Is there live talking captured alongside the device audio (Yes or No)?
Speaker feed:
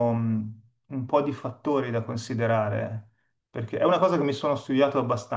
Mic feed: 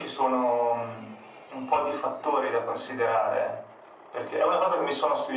No